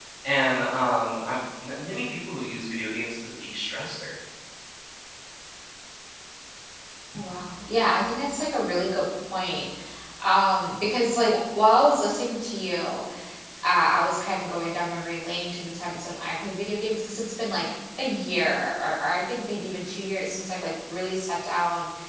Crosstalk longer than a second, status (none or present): none